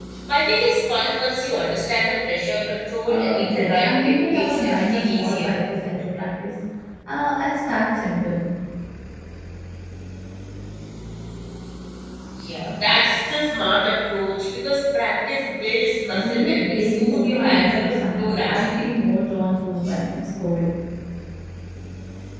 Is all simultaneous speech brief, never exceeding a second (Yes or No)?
No